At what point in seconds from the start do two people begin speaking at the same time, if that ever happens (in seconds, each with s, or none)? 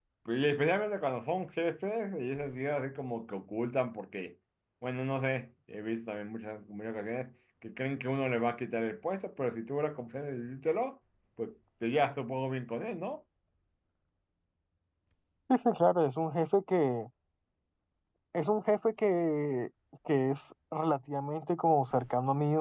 none